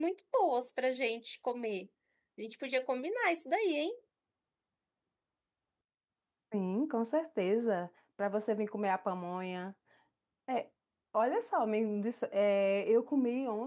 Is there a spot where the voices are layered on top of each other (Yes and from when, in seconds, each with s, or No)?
No